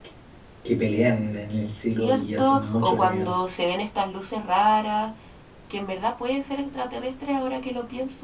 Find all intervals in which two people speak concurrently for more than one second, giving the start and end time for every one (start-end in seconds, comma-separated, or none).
2.0-3.3